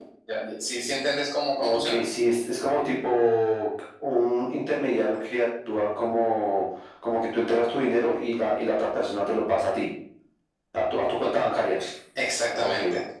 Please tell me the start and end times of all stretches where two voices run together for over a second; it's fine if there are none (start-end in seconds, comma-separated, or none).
none